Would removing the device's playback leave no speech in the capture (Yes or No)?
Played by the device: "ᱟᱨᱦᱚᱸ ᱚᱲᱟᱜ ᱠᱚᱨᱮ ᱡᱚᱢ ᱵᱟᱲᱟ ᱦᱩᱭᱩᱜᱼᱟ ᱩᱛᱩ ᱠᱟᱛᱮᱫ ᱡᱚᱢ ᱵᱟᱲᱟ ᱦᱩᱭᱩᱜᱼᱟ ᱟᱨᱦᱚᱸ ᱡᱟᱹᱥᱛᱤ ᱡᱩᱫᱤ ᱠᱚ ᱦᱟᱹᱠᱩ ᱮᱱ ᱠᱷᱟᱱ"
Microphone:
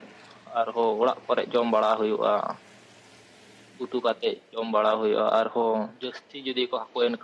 Yes